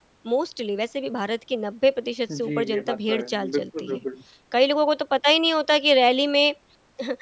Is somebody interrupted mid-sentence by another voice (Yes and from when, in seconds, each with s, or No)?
Yes, from 2.3 s